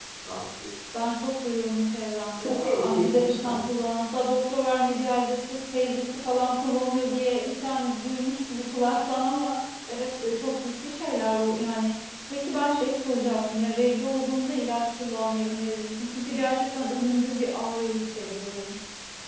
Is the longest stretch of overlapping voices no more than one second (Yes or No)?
No